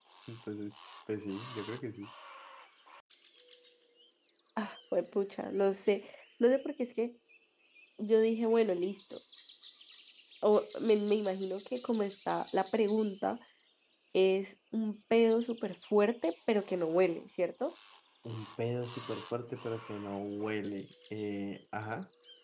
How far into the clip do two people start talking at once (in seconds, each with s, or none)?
none